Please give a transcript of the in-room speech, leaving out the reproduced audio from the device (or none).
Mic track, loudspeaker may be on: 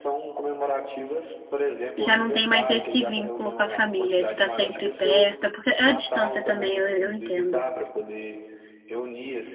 já não tem mais esse vínculo com a família, de estar sempre perto, porque é a distância também, eu, eu entendo.